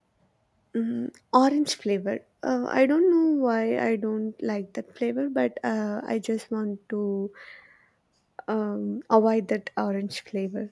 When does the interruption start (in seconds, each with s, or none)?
none